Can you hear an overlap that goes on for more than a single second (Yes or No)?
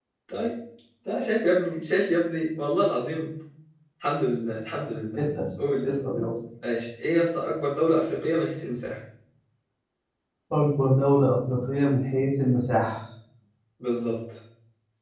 No